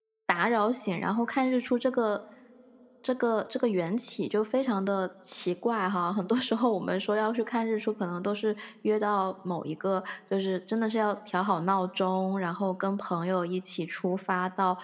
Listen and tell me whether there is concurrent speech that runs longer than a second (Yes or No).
No